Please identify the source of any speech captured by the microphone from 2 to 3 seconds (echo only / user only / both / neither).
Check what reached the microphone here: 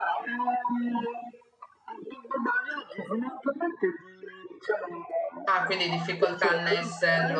echo only